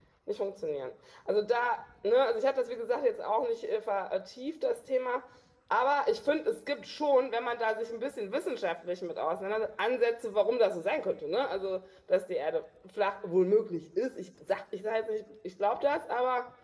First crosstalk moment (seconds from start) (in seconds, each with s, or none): none